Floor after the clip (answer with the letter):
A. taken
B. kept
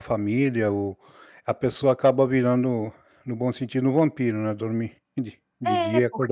A